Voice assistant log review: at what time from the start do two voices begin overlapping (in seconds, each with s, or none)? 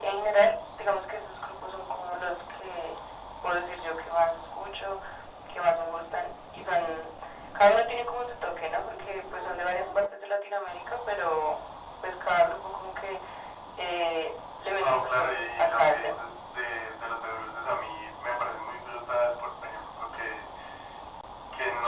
14.8 s